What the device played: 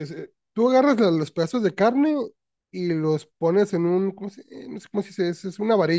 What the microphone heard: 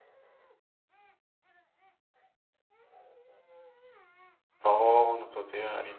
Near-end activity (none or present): present